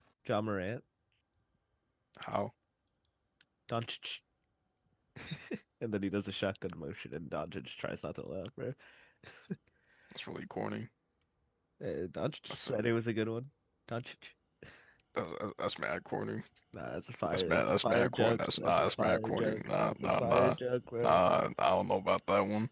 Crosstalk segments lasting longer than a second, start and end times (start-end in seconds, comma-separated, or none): 17.3-20.6